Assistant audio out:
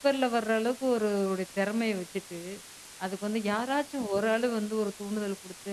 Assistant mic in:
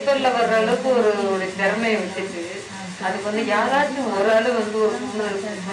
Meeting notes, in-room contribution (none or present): present